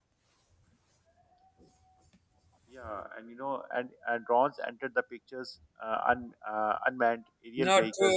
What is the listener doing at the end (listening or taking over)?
taking over